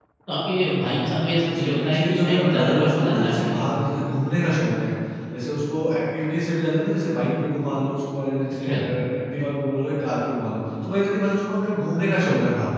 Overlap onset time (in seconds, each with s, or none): 1.5 s